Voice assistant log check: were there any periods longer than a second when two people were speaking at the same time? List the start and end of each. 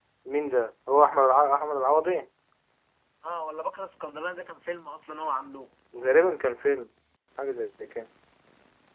none

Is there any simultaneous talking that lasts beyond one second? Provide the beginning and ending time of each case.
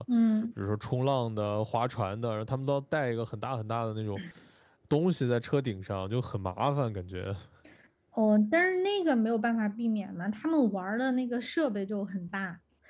none

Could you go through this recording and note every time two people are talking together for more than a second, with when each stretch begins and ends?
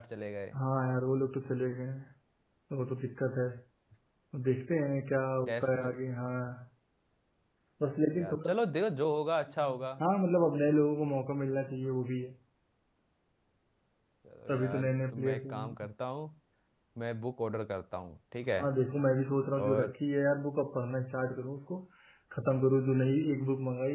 14.5-15.7

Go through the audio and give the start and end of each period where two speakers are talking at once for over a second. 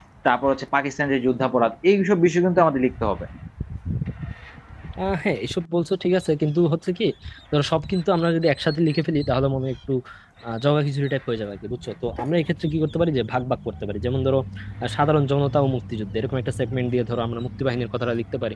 none

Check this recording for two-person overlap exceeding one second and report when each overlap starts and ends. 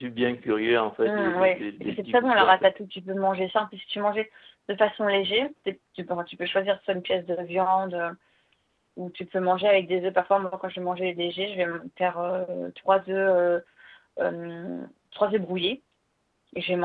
1.0-2.7

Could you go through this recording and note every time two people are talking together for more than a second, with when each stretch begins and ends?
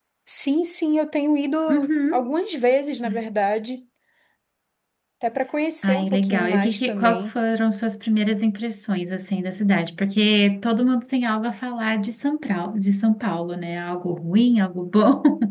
5.8-7.3

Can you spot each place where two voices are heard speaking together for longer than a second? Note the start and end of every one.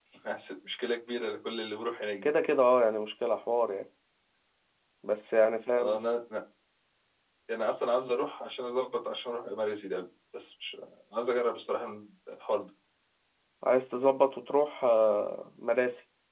none

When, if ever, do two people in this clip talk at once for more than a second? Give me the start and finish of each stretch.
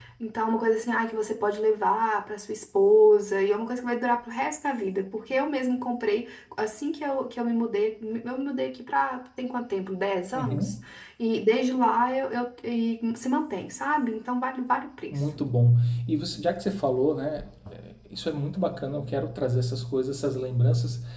none

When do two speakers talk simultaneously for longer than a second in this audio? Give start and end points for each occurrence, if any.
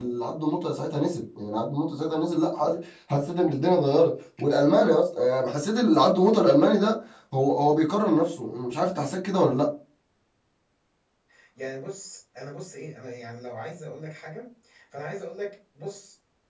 none

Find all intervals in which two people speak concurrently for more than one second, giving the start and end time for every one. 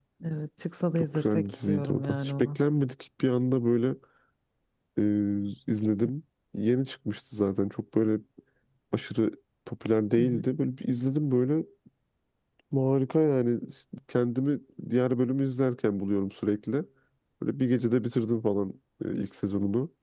1.0-2.6

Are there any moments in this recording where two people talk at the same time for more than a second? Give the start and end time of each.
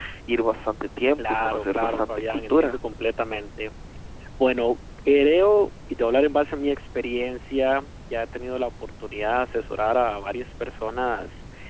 1.2-2.8

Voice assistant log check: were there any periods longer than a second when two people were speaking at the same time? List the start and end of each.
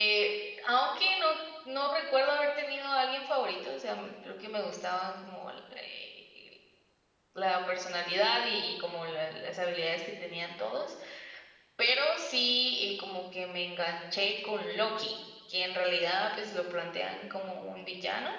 none

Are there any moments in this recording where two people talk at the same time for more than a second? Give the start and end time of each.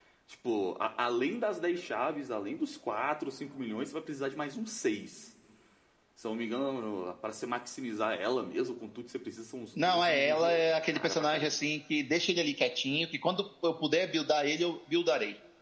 9.8-11.5

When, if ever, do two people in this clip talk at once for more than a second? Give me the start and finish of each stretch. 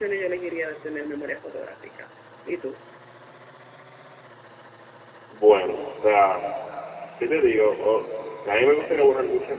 none

